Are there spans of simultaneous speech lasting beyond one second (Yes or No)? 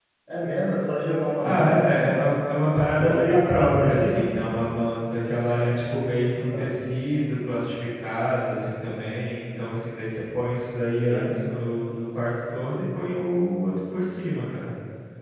Yes